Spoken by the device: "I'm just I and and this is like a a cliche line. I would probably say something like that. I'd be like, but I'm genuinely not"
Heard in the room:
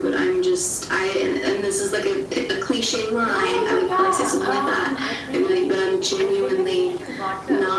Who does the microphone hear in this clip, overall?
both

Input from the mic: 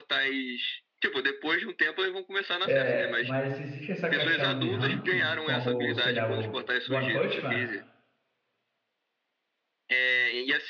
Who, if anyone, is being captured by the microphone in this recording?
both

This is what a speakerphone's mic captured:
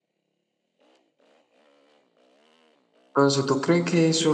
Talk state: user only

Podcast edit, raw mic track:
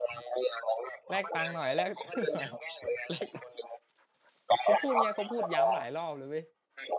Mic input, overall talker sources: both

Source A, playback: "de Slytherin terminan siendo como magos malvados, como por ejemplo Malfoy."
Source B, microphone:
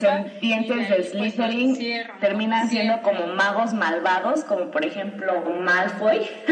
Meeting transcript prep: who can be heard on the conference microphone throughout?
both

